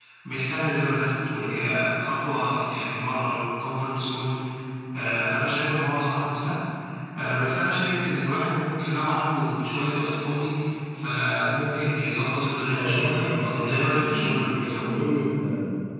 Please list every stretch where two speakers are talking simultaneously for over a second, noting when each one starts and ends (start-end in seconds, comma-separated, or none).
12.7-15.1